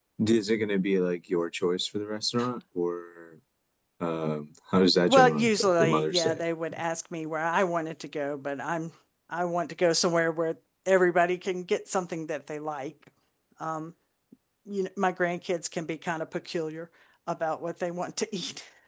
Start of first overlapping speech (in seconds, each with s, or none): 5.1 s